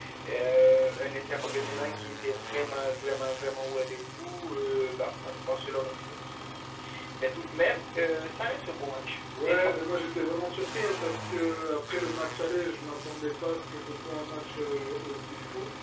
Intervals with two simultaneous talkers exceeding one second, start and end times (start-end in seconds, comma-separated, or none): none